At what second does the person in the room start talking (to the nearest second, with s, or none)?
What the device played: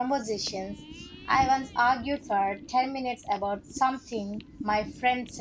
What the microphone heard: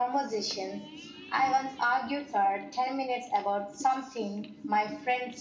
none